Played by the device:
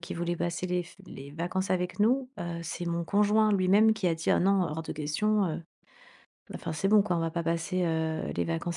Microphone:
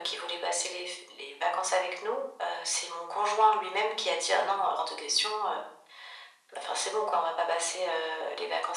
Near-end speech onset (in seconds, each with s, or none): none